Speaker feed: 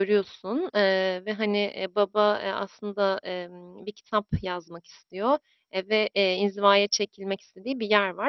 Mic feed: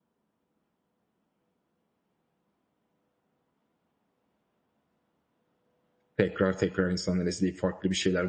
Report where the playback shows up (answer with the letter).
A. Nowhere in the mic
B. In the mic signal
A